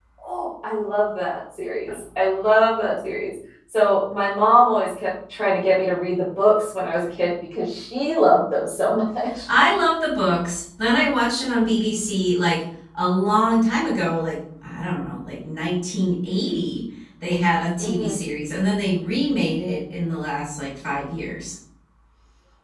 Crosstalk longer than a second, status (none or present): none